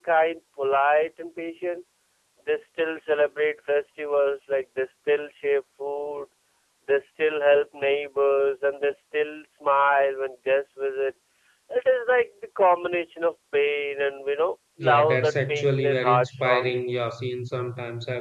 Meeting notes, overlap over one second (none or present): present